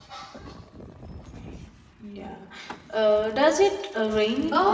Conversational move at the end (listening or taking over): taking over